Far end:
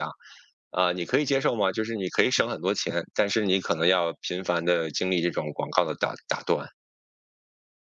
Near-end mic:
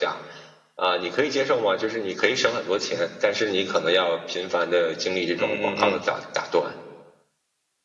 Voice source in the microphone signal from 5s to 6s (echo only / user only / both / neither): both